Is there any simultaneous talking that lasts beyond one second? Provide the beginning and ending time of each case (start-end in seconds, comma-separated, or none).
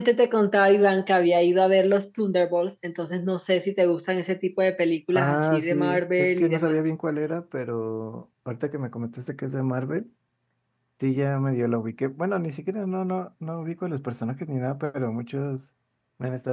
5.1-6.8